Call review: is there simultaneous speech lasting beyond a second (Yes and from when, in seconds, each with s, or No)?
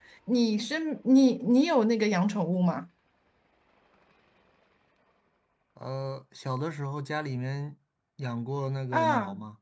No